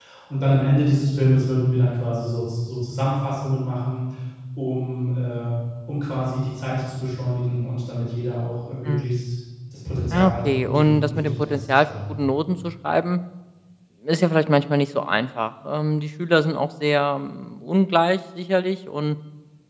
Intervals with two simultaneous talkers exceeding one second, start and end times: 10.1-12.2

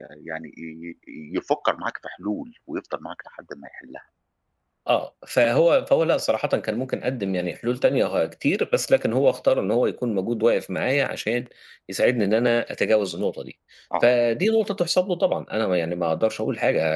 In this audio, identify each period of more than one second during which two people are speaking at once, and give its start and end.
none

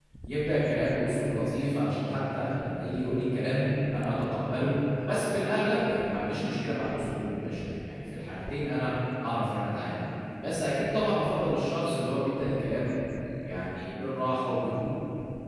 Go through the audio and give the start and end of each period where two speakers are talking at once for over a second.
none

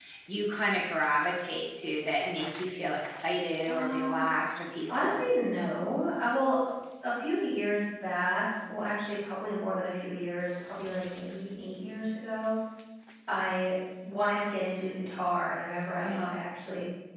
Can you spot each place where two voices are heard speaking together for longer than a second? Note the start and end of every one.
none

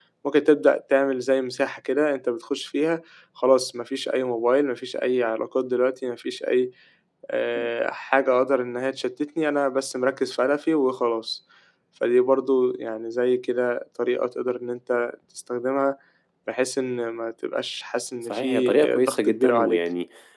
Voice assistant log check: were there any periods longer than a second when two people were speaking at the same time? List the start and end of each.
18.2-19.8

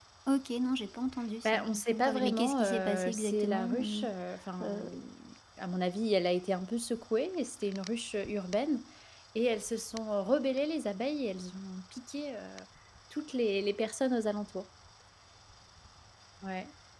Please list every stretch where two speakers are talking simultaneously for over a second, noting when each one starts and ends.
1.4-4.1

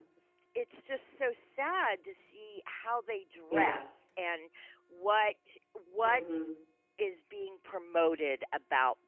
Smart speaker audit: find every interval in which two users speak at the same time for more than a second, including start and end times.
none

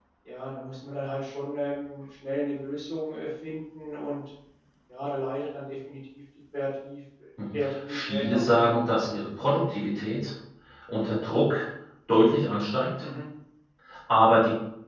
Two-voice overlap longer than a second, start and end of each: 7.5-8.8

